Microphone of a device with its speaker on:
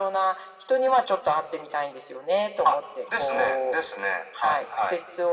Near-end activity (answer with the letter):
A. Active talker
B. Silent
B